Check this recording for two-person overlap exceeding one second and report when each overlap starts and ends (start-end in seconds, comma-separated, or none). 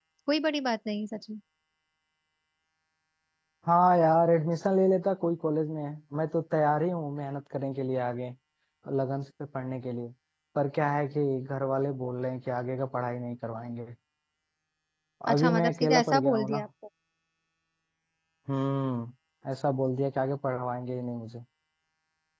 15.3-16.6